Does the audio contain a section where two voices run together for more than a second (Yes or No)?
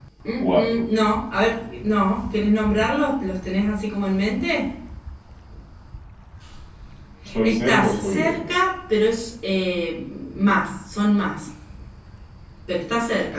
Yes